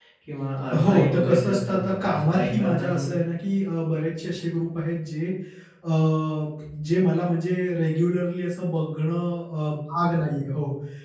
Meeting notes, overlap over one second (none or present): present